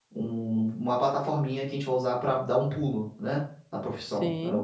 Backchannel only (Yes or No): Yes